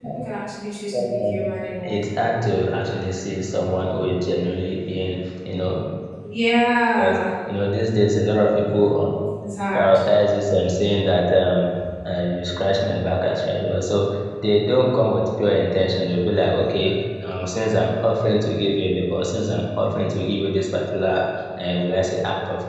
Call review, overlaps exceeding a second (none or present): none